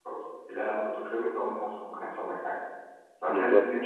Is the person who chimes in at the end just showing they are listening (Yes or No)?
Yes